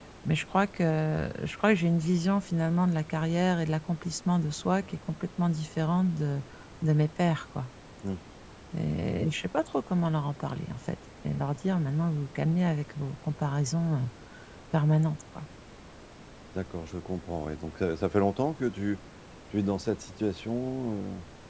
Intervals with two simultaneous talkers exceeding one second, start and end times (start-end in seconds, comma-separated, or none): none